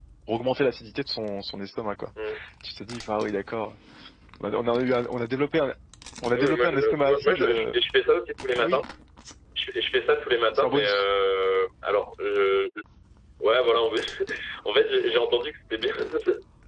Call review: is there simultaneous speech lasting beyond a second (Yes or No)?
Yes